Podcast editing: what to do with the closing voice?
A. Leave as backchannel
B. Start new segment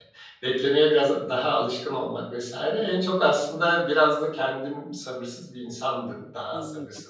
A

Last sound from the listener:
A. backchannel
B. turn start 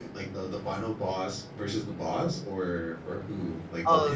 B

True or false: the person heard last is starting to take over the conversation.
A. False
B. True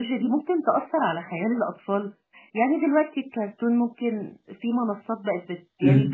A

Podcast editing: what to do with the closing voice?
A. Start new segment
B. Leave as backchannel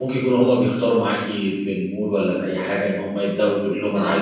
B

